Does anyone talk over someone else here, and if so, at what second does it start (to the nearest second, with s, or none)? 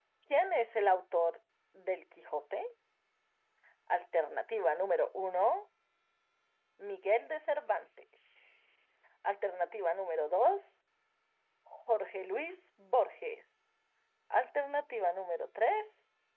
none